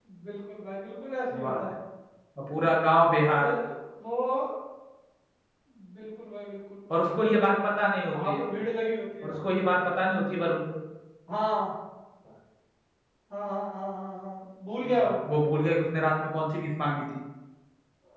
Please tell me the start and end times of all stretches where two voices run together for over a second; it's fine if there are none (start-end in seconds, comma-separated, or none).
none